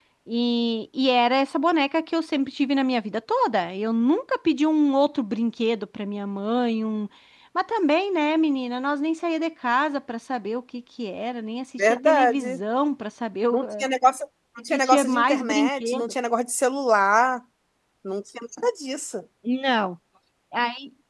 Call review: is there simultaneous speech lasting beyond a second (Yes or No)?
Yes